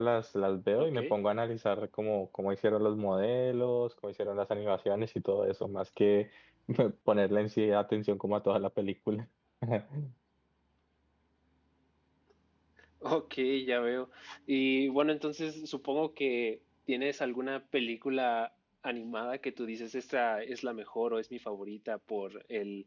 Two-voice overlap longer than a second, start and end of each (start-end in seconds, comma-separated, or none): none